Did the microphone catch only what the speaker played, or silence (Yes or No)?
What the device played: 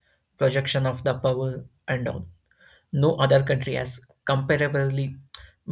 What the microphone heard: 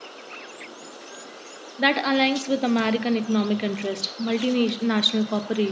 No